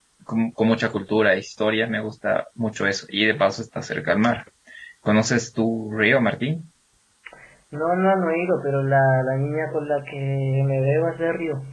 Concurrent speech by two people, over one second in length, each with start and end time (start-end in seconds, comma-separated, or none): none